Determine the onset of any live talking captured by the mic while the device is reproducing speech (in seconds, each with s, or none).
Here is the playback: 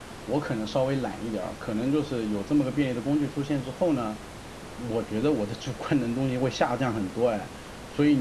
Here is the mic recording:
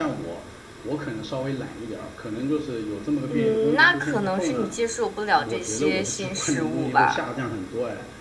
3.3 s